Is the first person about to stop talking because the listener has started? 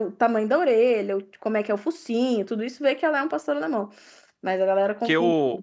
Yes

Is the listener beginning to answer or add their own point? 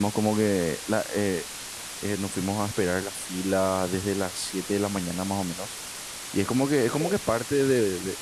No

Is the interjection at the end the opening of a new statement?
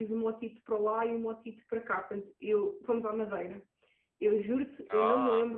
No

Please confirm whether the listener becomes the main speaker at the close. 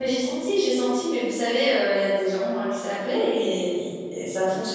No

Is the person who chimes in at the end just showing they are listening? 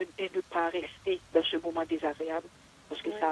Yes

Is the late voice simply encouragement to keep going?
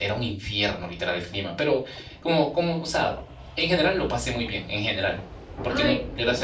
Yes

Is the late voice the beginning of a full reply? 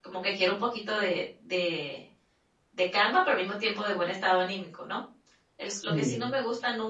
No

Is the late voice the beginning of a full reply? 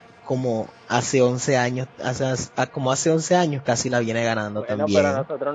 Yes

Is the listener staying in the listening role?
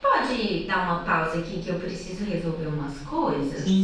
No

